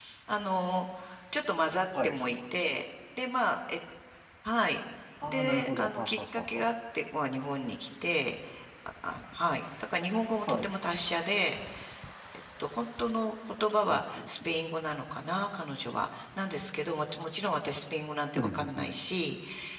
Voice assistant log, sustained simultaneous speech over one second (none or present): present